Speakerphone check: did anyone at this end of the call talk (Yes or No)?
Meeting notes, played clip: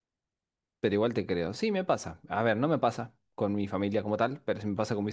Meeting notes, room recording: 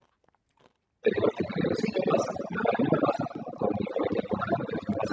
No